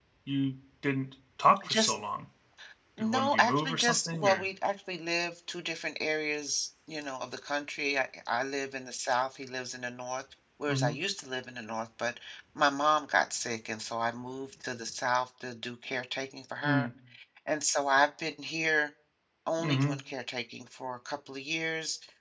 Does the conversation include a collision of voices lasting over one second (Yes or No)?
Yes